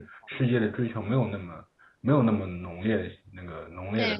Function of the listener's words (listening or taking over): taking over